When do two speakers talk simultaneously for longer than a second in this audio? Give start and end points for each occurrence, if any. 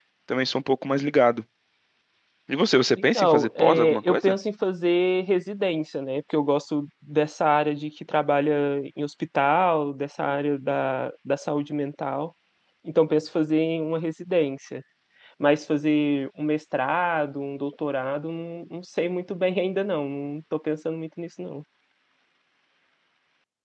3.0-4.4

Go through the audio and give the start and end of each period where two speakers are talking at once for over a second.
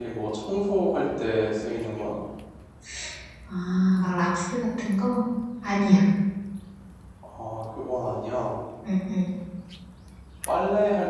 none

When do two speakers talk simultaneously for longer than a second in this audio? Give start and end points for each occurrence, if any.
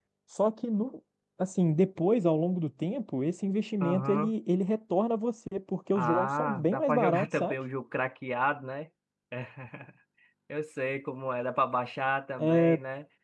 6.0-7.5

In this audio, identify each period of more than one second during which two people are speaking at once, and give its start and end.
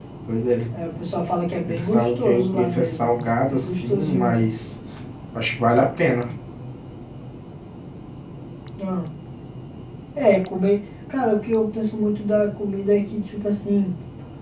1.7-4.5

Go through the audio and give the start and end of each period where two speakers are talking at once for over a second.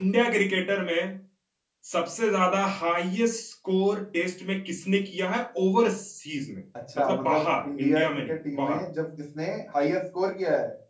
7.0-8.8

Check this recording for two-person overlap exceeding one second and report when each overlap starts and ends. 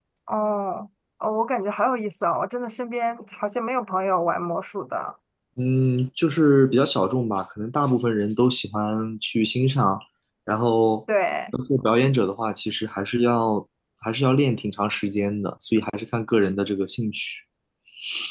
none

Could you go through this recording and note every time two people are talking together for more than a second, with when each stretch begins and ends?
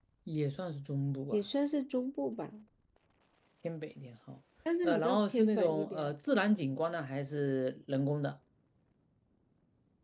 4.8-6.1

